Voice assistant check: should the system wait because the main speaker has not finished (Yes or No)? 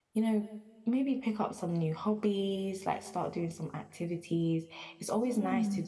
Yes